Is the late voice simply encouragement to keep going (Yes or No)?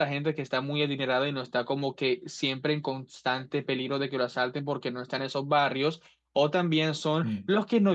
Yes